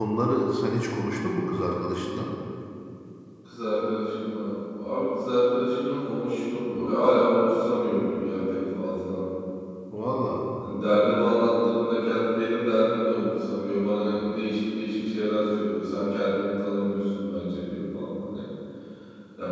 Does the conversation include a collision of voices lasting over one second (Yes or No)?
No